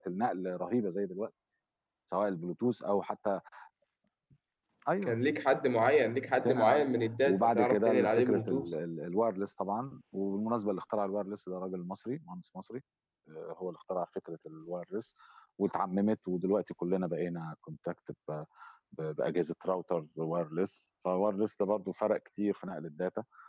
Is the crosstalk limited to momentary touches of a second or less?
No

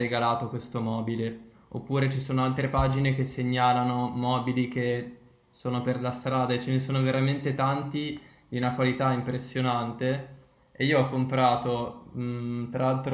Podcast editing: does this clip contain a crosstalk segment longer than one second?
No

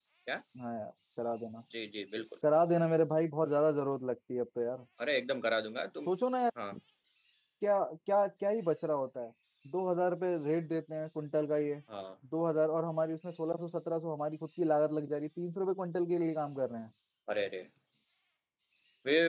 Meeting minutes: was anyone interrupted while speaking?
No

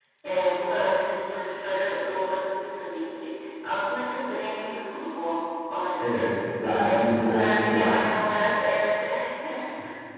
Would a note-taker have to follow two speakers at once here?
Yes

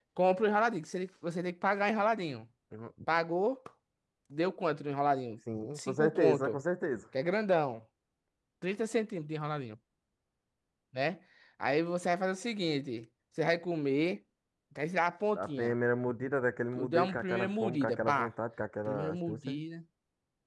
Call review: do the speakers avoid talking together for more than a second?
No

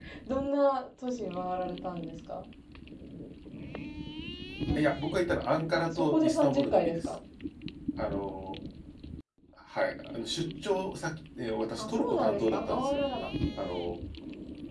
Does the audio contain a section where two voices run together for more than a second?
Yes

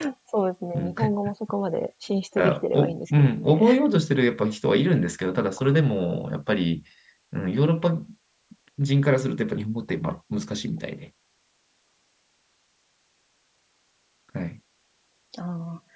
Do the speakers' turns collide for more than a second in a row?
Yes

